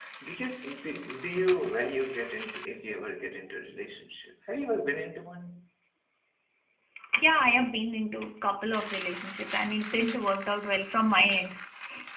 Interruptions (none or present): none